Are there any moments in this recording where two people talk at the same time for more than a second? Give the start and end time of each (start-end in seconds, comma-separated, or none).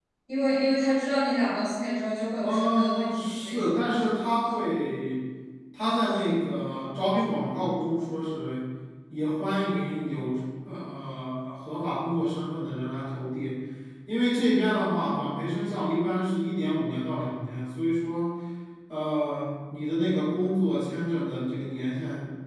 2.4-3.9